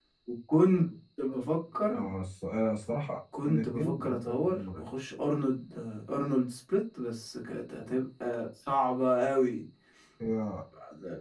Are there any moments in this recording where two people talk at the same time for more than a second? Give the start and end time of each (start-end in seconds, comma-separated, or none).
3.4-4.9